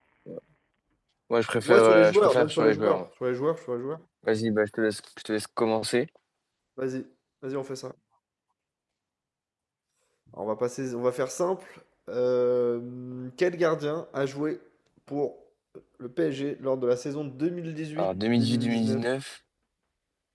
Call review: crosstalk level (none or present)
present